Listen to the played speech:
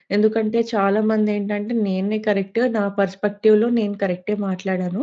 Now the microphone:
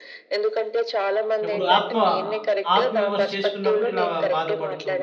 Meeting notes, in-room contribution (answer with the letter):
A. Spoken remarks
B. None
A